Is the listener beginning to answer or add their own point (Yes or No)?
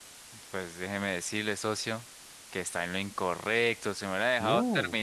No